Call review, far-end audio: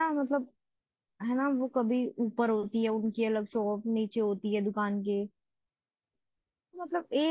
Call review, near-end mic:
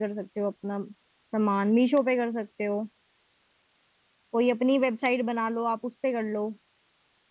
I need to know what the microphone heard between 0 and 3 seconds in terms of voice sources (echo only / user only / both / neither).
user only